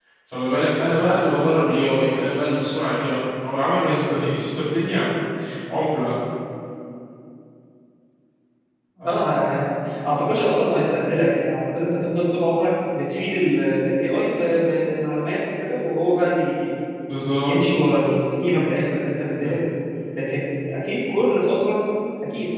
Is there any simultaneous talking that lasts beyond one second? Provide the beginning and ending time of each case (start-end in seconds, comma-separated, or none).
none